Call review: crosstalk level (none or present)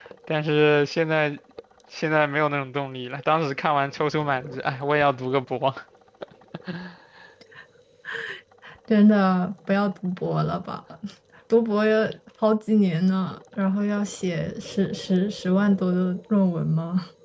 none